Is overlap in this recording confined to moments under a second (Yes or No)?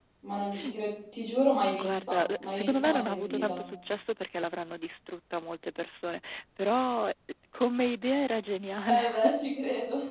No